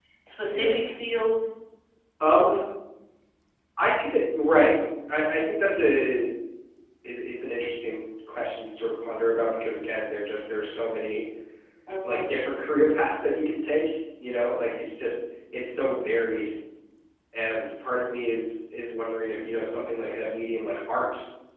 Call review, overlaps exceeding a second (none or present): none